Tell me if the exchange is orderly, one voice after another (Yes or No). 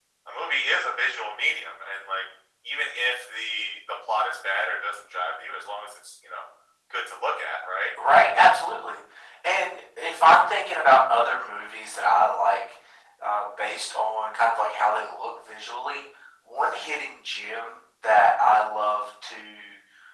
Yes